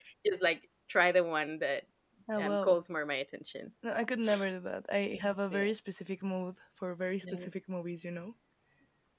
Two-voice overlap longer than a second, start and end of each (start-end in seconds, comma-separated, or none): none